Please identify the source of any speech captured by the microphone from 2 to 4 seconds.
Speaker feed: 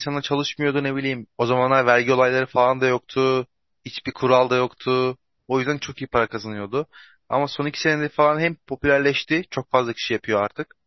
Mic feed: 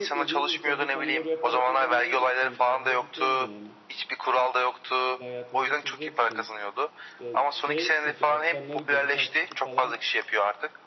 both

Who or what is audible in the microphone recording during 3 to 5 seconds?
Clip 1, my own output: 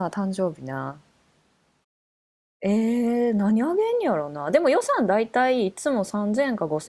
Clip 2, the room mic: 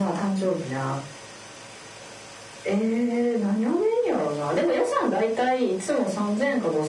echo only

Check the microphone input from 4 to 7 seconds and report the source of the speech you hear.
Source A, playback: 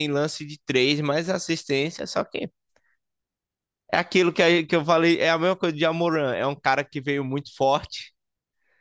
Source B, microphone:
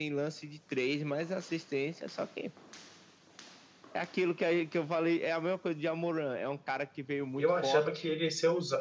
echo only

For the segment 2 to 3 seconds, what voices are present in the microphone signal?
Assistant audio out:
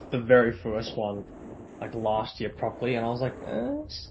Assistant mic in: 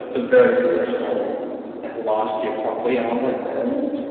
echo only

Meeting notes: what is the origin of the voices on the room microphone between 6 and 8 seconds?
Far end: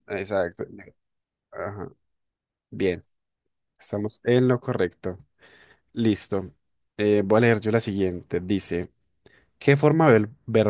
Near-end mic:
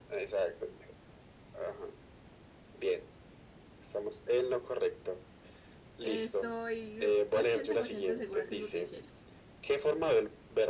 both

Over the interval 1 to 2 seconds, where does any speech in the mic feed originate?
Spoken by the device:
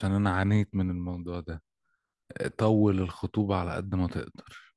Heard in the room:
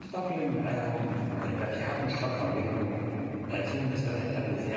user only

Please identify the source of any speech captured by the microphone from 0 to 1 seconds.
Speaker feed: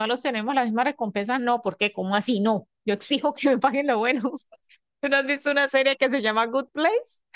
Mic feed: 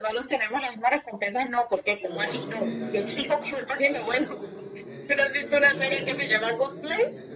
echo only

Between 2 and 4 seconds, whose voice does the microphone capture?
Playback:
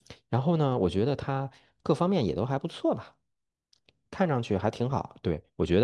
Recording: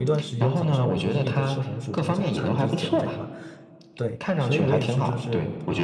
both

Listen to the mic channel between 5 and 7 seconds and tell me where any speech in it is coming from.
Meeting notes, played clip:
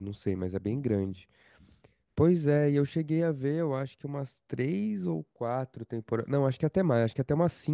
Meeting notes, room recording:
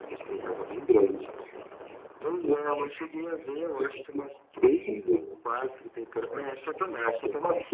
echo only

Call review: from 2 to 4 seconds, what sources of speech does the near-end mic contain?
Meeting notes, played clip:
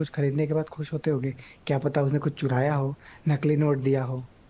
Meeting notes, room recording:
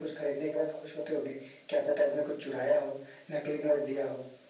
echo only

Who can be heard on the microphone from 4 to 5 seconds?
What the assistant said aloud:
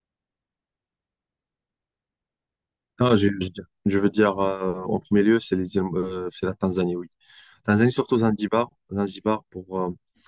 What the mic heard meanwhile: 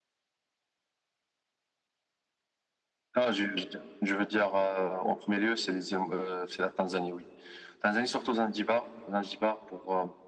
echo only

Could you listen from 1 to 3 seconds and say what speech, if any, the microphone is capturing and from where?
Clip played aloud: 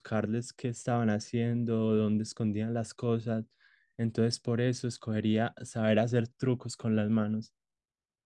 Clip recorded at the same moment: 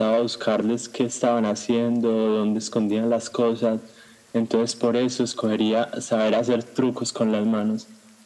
echo only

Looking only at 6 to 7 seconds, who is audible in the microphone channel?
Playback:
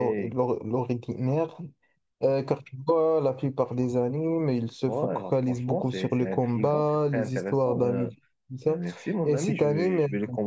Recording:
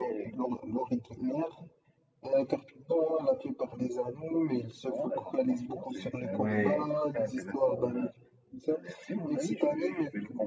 both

